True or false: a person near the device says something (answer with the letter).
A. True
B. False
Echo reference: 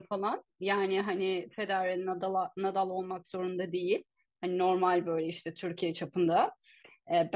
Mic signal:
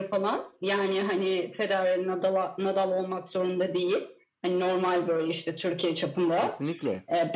A